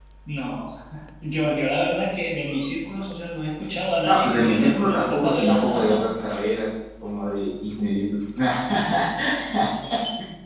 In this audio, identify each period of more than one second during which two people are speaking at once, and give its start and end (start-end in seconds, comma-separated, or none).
4.0-6.1